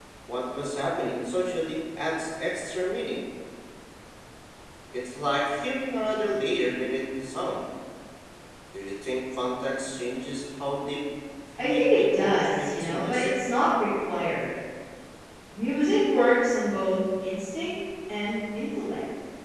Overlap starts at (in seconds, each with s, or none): 11.6 s